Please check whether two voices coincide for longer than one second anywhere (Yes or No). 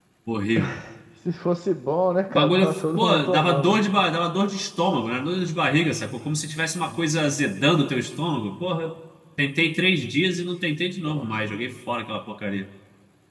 Yes